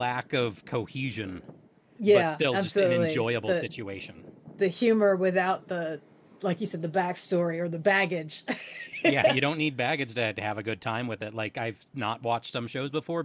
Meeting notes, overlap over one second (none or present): present